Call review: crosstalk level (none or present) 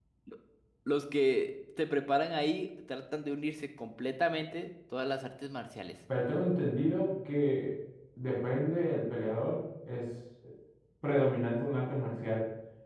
none